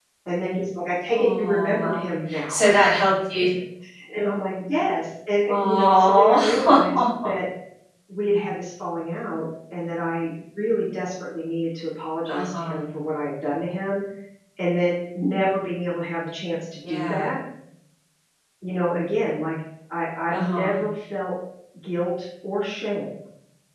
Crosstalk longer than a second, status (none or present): present